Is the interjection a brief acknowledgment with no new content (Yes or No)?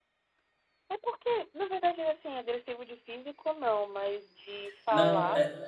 No